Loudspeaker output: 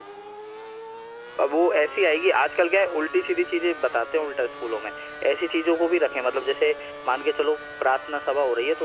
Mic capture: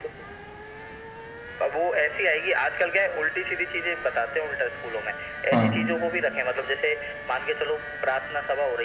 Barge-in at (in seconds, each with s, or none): 5.5 s